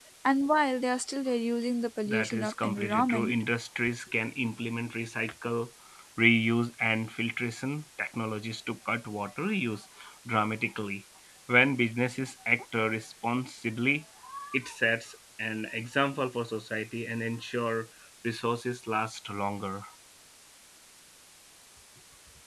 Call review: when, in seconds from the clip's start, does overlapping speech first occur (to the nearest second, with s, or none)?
2 s